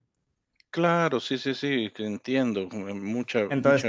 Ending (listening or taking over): taking over